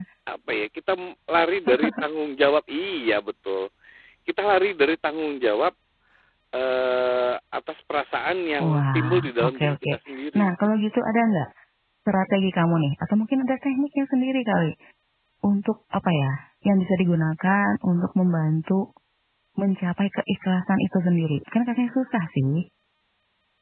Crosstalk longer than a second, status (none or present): present